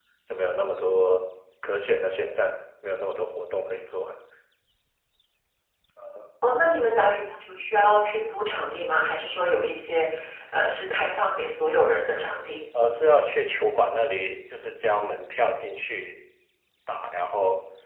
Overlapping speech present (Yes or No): No